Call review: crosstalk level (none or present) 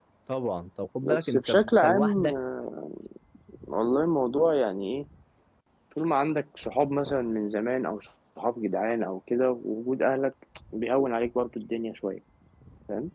present